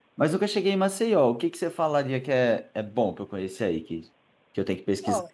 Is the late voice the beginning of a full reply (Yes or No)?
Yes